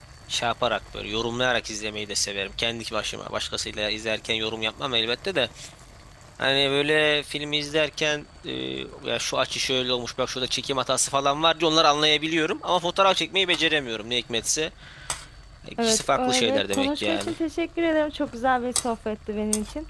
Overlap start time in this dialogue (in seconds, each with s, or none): 15.8 s